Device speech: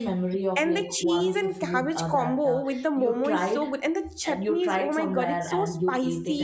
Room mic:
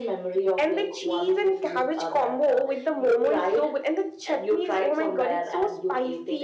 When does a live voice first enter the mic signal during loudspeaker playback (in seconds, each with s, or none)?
none